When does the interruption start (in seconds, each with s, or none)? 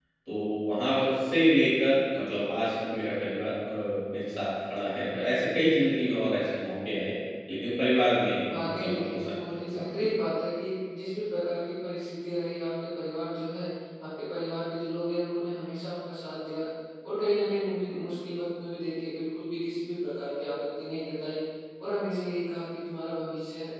8.5 s